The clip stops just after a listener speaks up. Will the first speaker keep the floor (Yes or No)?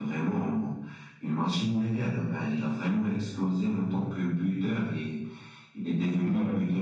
Yes